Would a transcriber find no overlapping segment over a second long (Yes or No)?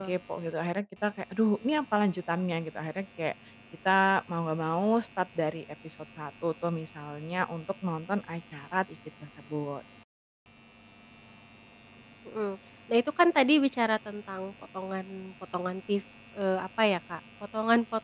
Yes